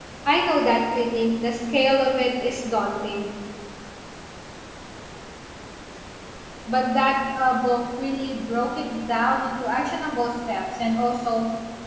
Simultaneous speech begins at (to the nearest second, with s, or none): none